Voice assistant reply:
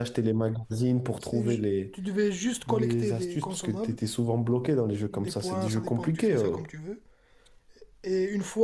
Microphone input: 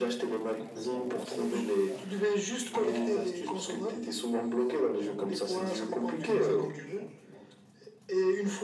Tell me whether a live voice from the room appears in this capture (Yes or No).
Yes